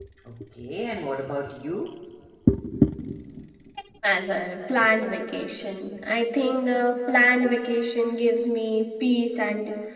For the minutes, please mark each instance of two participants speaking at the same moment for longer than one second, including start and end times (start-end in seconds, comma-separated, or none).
none